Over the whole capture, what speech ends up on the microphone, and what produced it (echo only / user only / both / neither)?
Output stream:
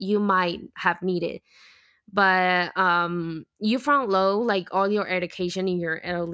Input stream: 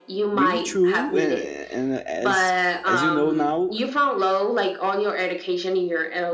both